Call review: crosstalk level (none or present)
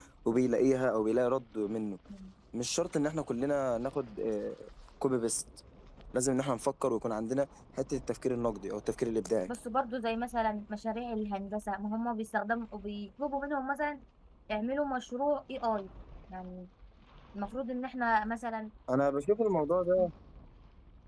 none